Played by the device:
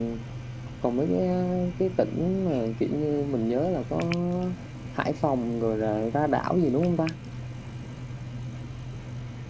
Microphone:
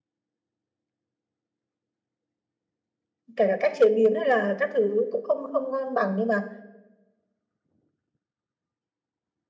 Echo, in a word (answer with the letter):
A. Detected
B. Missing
B